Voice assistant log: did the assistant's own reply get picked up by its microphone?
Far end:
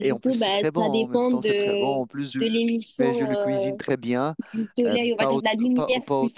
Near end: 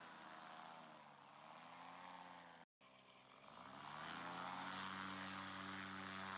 No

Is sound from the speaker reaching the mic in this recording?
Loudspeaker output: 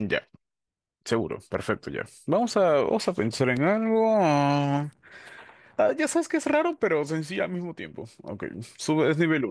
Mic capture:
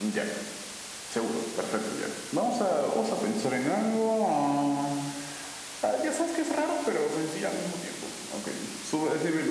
Yes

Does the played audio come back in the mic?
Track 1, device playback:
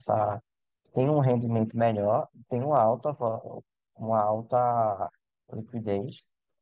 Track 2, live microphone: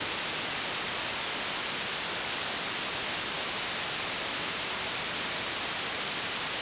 No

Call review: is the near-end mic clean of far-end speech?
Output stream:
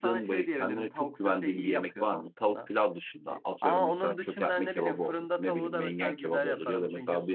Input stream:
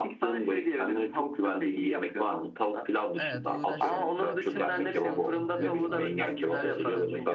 No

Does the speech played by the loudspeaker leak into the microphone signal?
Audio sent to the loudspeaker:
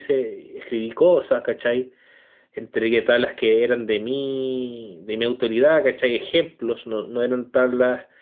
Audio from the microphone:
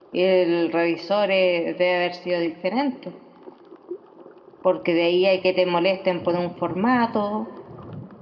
No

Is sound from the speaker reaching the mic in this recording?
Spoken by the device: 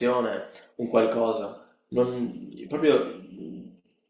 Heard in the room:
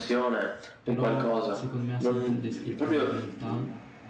Yes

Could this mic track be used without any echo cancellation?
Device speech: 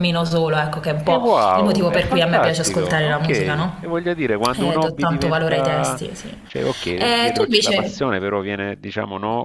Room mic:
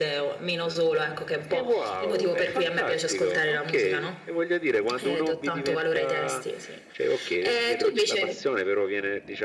No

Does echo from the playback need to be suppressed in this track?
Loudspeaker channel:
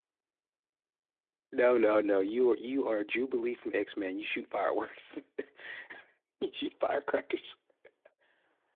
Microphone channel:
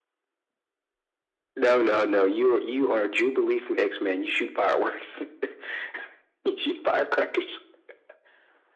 Yes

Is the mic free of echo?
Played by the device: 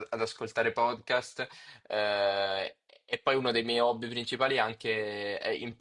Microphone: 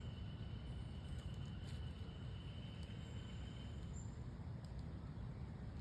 Yes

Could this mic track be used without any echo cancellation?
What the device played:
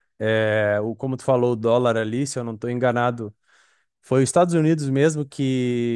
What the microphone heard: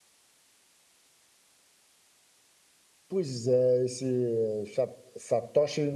Yes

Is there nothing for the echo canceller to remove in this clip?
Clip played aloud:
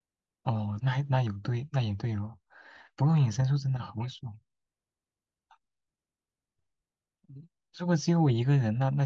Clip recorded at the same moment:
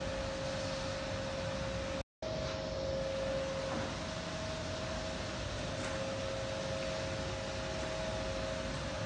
Yes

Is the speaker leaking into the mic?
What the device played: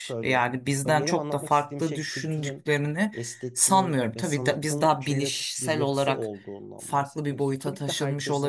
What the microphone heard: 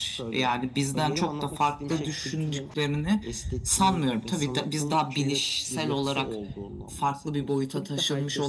Yes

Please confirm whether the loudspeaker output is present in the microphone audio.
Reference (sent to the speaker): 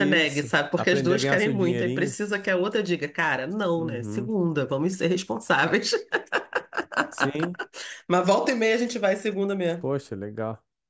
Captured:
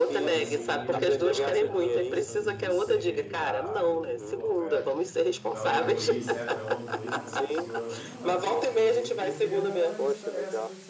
Yes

